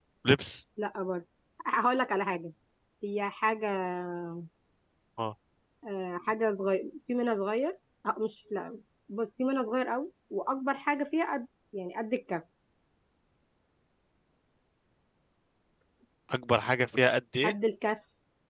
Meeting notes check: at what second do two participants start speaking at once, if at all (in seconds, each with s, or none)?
none